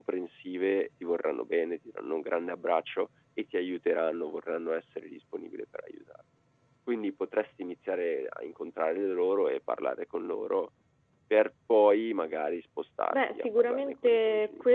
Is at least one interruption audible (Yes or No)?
Yes